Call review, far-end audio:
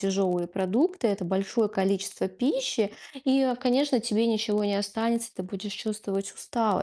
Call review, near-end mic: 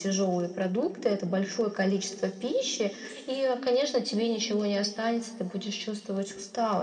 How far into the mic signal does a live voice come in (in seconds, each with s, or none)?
none